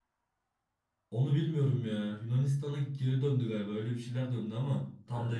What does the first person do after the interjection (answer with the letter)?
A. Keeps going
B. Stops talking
B